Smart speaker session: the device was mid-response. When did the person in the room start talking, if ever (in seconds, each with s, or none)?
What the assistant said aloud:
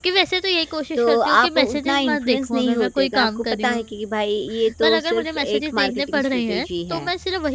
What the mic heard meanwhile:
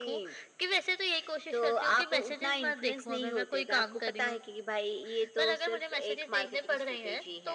none